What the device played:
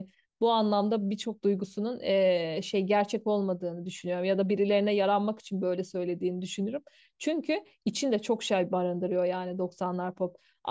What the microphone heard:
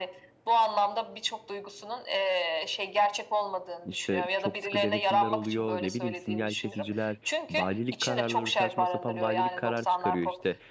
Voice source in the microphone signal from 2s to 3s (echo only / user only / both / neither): echo only